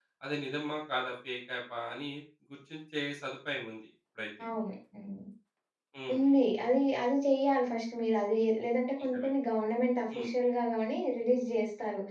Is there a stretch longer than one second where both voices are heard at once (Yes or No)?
No